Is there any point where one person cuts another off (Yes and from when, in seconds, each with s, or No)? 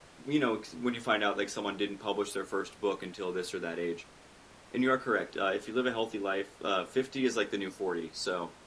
No